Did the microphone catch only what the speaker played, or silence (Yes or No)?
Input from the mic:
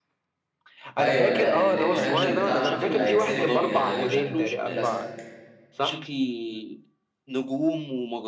No